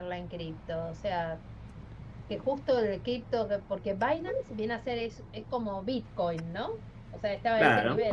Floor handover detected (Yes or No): No